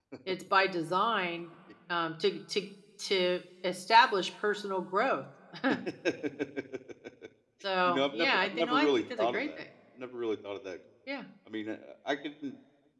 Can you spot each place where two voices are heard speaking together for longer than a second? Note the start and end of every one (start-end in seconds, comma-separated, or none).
7.9-9.6